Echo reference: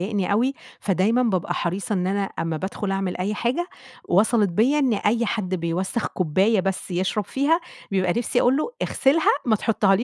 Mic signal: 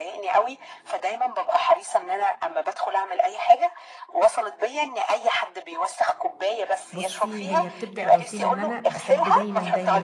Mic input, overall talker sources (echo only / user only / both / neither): both